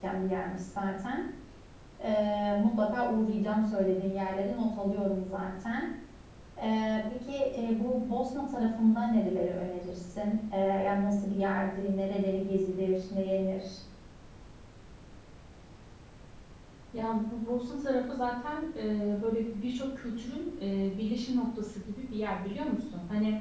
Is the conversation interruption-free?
Yes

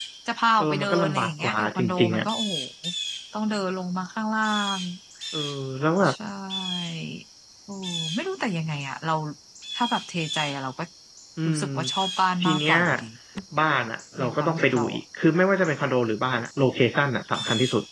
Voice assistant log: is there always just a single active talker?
No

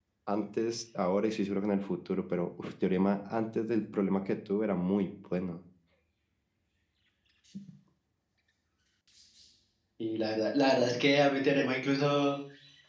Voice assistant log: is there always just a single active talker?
Yes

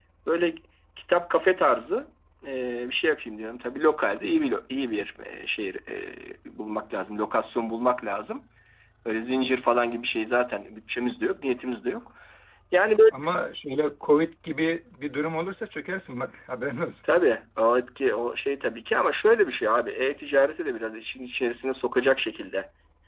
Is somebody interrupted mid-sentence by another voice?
No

